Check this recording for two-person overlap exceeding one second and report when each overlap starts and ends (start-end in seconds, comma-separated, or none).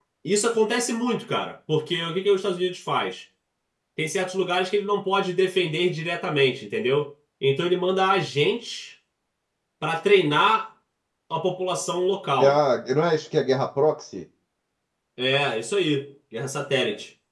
none